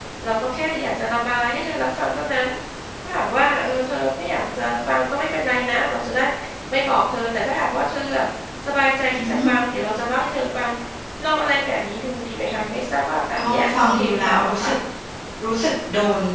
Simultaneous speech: Yes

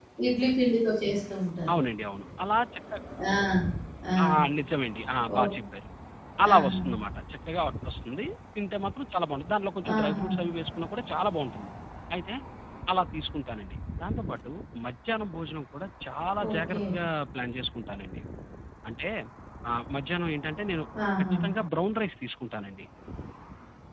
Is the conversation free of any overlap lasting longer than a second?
Yes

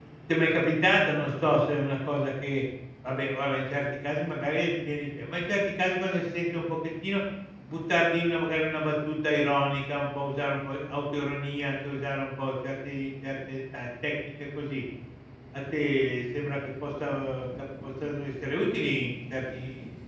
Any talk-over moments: No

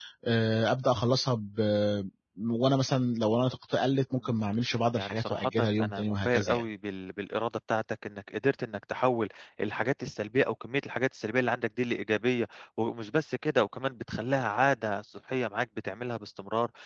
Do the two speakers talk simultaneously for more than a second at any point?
Yes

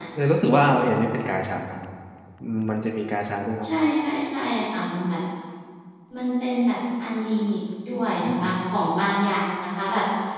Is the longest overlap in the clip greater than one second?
No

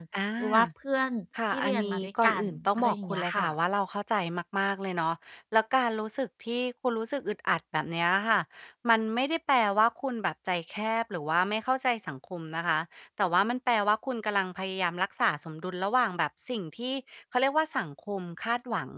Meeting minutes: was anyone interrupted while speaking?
Yes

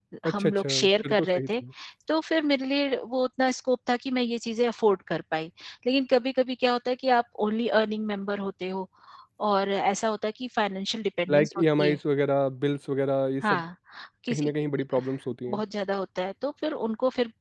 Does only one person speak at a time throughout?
No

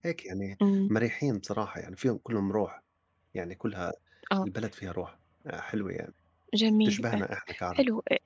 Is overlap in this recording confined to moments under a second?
Yes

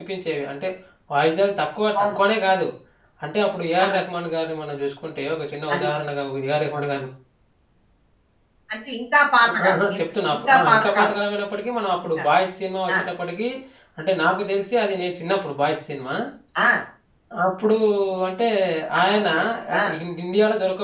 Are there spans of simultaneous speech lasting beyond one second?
Yes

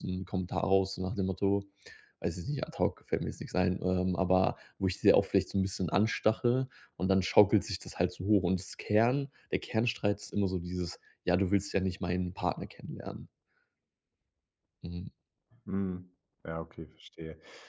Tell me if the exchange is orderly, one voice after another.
Yes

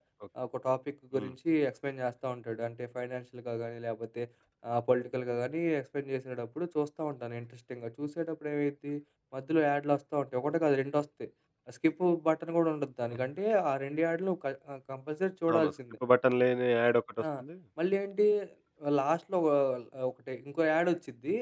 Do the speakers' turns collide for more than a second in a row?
No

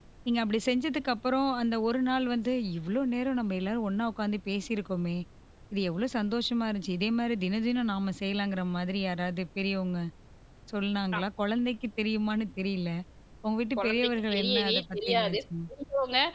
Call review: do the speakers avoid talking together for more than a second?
No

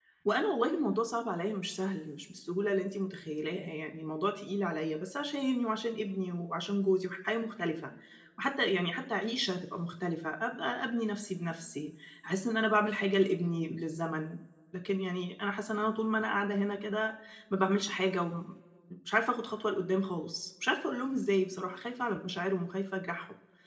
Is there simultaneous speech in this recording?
No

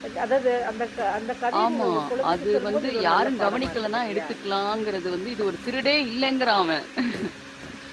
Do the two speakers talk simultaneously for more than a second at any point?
Yes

